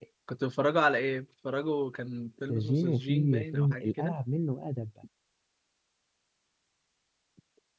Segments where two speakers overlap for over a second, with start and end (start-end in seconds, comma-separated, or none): 2.5-4.2